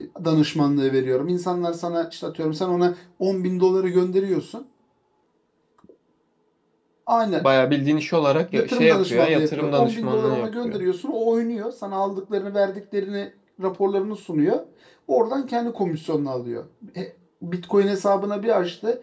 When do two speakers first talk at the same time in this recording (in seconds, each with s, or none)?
8.5 s